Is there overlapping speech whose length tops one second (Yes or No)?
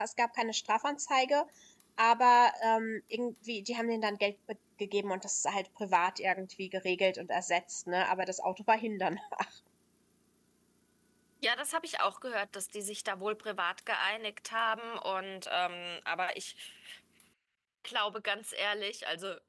No